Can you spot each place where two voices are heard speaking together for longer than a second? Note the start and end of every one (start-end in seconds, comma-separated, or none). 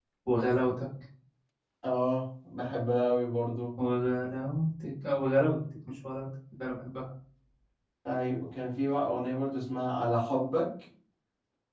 none